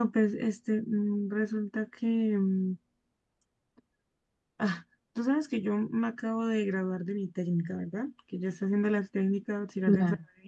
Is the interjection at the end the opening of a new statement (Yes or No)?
No